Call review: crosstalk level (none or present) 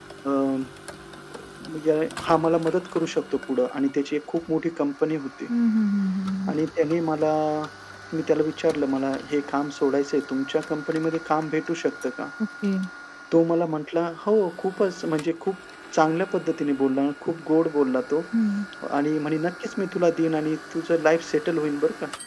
none